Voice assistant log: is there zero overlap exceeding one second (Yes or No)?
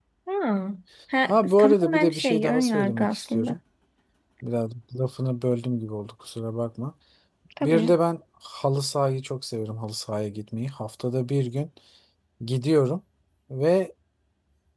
No